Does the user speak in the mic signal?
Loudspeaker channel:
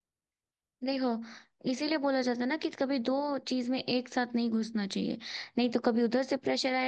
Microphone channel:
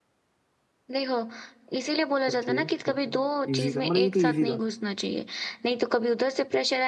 Yes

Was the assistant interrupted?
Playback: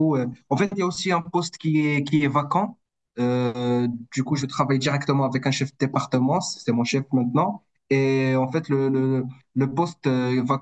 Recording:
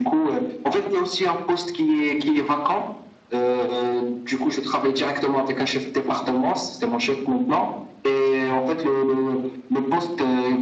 No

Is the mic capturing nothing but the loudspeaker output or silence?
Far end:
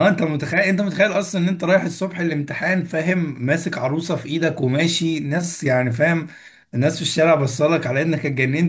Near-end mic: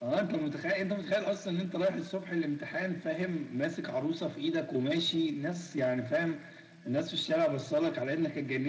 Yes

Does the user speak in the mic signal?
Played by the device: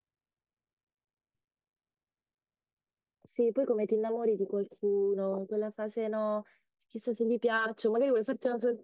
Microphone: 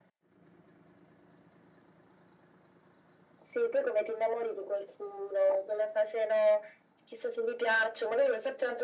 No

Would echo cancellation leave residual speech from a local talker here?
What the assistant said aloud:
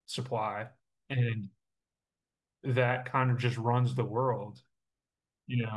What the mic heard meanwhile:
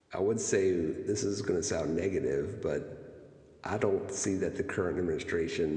Yes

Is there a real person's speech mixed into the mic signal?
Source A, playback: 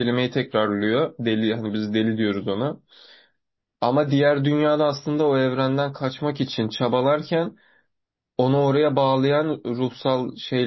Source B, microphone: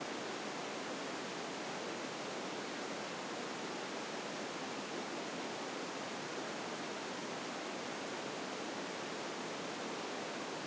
No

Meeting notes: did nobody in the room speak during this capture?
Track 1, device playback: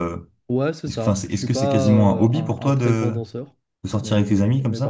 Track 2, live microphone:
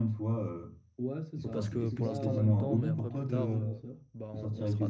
No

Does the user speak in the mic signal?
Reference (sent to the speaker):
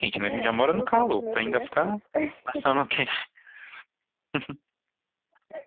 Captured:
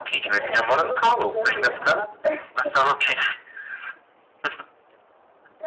No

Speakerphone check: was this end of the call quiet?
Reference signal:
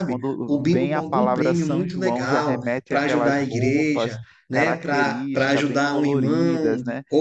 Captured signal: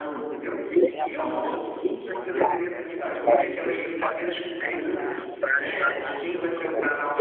No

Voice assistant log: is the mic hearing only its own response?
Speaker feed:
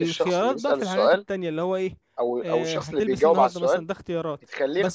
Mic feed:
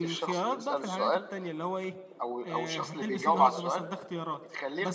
Yes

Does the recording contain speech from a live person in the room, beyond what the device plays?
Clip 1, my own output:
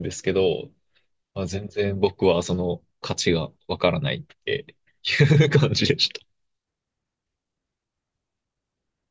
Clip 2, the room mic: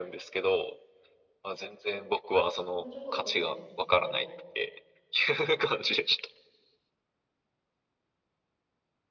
Yes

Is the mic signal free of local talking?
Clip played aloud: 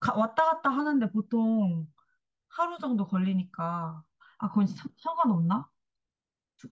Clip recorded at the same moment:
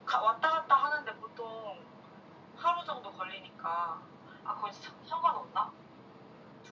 Yes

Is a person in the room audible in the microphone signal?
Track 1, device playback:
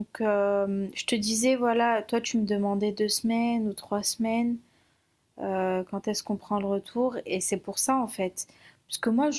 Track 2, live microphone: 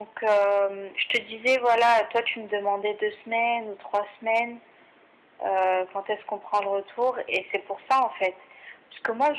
No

